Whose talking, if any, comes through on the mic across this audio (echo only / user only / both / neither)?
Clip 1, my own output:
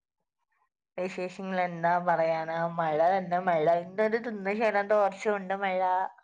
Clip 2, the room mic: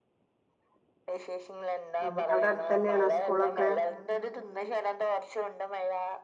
both